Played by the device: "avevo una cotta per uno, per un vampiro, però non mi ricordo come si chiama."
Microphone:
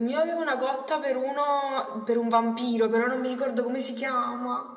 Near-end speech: none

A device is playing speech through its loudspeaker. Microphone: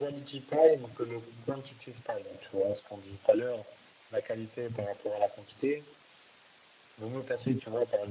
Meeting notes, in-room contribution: none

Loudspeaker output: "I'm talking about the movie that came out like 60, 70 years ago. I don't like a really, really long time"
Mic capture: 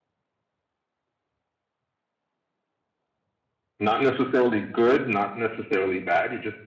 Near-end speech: present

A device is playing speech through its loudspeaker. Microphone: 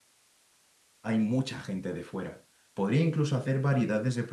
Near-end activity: present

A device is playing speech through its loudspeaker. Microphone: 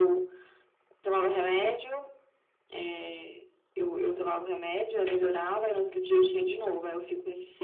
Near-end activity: present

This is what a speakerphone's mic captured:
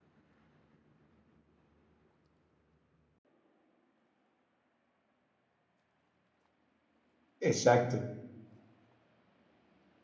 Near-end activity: present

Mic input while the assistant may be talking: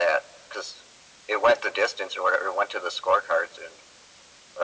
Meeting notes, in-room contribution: none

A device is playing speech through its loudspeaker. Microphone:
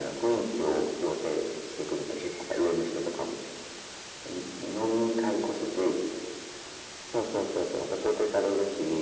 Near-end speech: none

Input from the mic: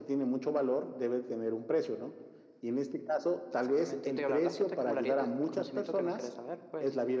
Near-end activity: none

